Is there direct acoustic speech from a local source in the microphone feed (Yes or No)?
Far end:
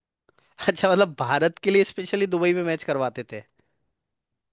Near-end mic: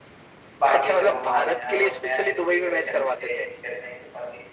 Yes